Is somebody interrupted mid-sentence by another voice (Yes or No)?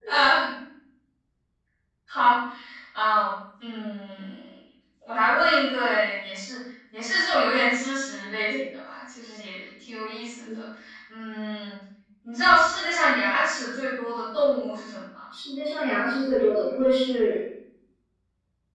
No